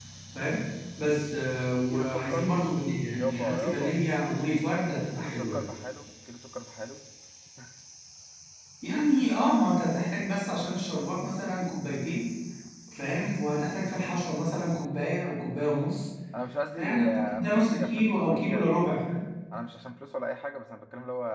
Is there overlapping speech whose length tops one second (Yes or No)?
Yes